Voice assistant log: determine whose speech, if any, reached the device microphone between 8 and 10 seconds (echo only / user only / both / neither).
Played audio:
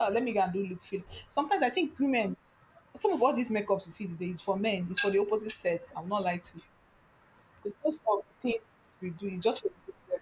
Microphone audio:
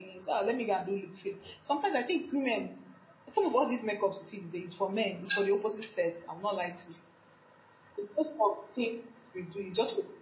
echo only